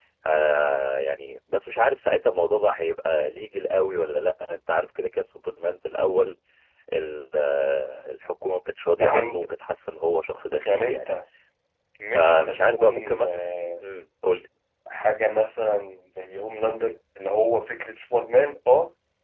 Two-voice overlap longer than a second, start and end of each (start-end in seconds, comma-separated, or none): 12.1-13.4